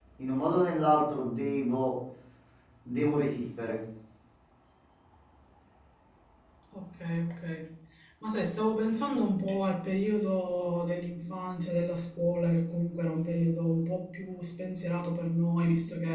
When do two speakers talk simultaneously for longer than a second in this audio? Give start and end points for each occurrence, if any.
none

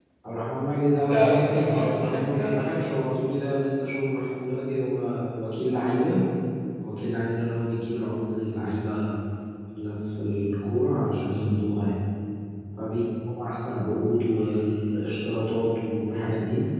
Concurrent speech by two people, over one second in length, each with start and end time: 1.0-2.9

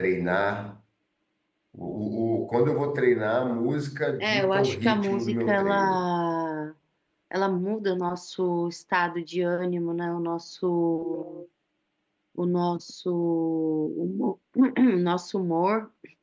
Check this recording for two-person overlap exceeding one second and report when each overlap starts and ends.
4.2-6.0

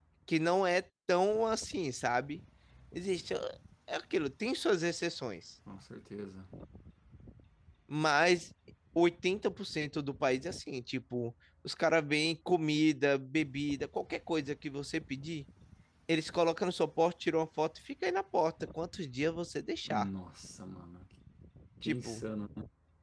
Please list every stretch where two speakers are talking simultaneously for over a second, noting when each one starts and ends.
none

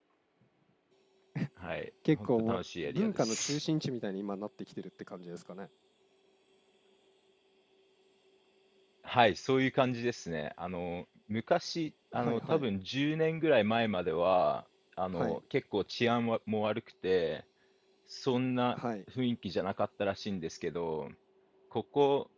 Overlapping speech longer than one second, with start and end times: 2.1-3.6

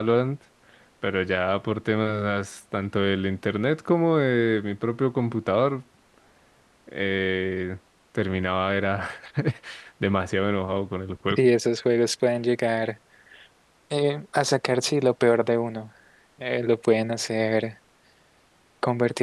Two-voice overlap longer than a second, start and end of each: none

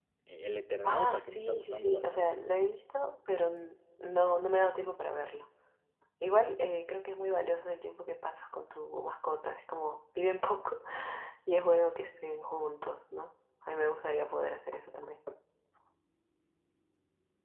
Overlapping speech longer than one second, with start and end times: 0.8-2.4

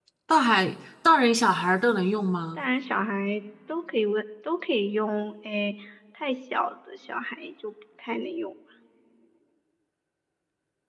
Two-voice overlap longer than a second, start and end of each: none

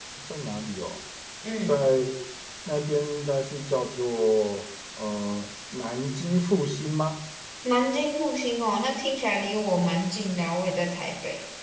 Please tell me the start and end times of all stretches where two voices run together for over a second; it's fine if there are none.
none

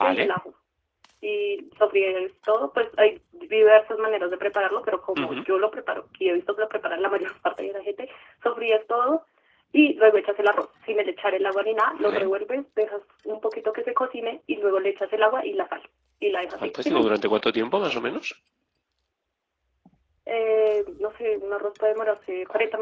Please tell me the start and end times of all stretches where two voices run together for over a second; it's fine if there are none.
none

